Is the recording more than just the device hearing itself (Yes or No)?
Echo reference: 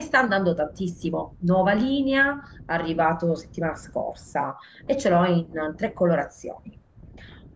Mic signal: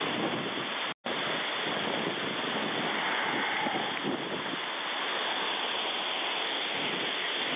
No